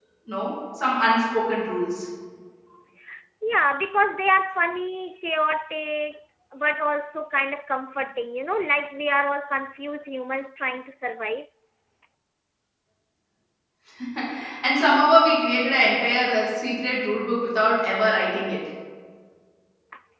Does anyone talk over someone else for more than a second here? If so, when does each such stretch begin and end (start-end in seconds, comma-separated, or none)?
none